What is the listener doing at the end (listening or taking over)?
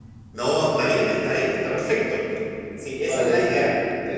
taking over